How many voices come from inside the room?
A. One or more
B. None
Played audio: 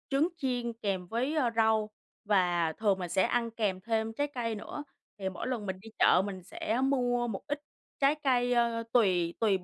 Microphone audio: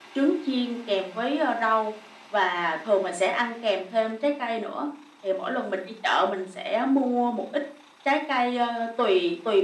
B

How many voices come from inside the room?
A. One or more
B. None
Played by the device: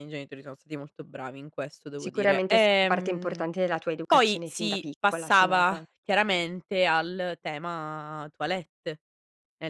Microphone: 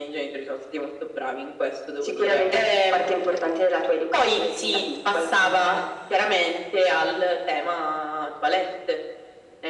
B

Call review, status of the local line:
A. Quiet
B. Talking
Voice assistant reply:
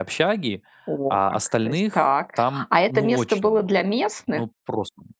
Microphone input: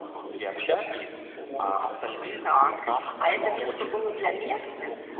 A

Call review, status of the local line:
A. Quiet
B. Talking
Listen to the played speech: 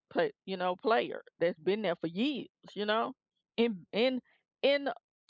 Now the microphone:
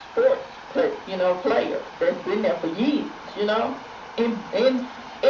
A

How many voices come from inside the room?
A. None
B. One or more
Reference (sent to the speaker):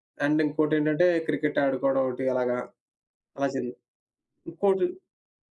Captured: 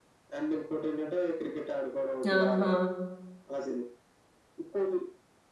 B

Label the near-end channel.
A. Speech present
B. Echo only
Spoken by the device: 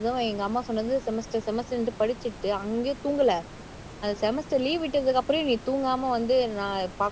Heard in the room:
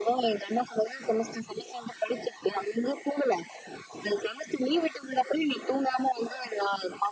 B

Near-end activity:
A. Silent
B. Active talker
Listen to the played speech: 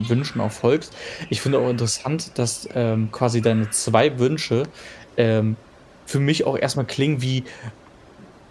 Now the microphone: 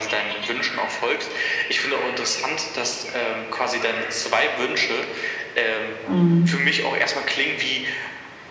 B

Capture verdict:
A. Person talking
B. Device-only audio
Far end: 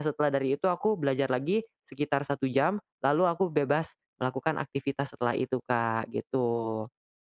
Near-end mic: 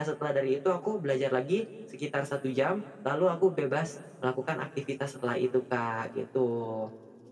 B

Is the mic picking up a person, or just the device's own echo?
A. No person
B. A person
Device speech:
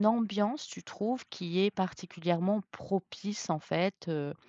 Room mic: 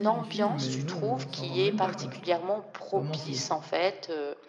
B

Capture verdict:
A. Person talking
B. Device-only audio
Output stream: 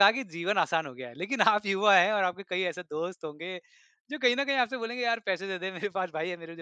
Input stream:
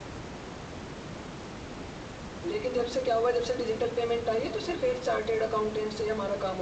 A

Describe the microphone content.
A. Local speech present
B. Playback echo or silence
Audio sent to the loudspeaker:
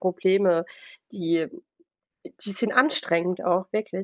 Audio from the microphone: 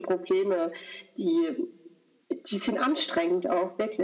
B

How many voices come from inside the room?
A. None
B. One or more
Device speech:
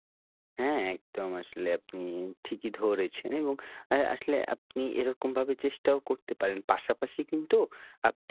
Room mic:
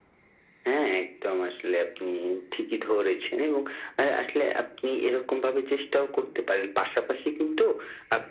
A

